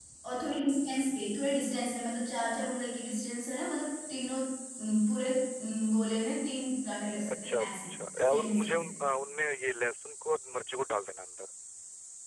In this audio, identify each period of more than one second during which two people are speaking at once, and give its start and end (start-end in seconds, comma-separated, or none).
7.3-8.9